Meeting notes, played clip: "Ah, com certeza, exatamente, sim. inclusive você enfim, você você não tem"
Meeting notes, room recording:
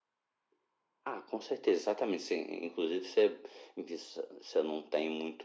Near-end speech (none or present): none